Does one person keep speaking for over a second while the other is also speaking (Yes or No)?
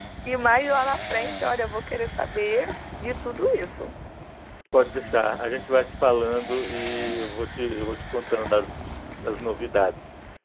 No